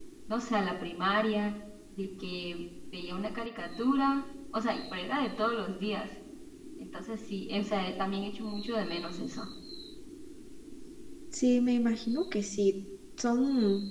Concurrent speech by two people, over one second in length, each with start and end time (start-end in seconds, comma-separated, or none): none